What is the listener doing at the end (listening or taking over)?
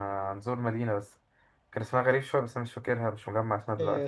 taking over